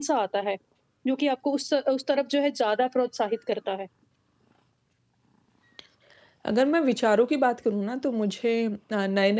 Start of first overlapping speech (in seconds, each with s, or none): none